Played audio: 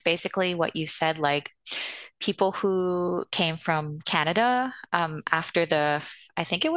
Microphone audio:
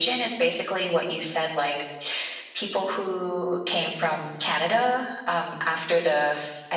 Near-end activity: none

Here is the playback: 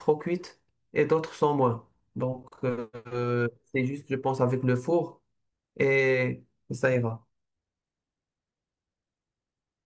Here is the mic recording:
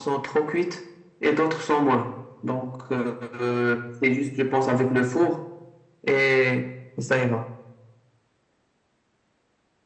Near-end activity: none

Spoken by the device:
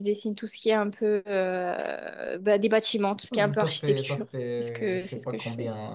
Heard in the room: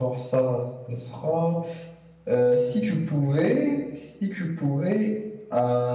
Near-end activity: present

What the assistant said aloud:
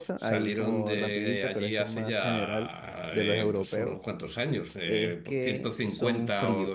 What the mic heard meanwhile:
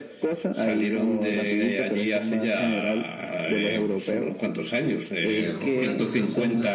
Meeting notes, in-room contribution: present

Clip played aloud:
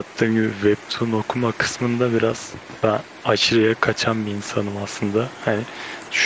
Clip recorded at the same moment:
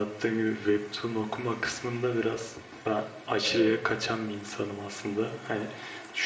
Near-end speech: present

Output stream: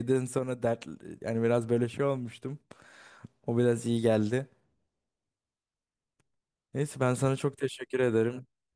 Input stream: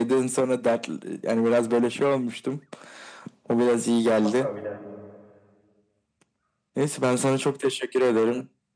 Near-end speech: present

